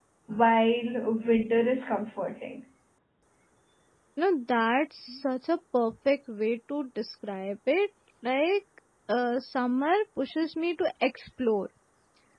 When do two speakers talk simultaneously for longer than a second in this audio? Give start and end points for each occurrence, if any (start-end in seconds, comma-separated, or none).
none